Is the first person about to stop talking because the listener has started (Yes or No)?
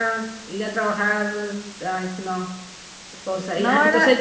No